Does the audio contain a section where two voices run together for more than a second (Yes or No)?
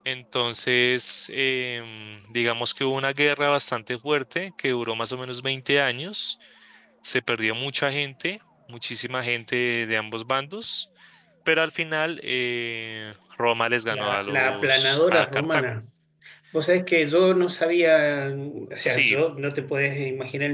Yes